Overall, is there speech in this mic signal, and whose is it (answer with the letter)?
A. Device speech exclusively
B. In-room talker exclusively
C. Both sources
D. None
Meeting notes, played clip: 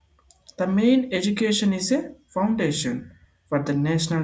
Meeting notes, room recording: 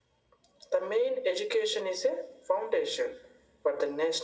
A